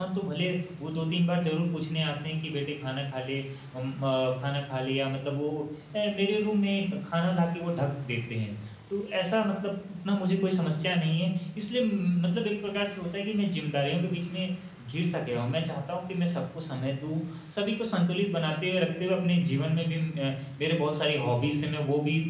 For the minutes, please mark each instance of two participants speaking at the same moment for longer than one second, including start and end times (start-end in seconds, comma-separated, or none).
none